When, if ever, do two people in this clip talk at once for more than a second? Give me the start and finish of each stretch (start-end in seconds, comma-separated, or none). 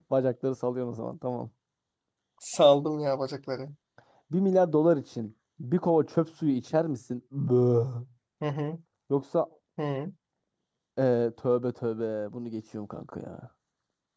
none